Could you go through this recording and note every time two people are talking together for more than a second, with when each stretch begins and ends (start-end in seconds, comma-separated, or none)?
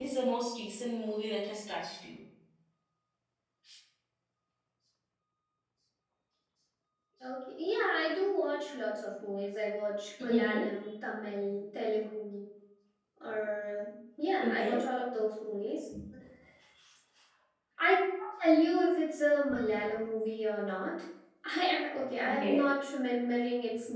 none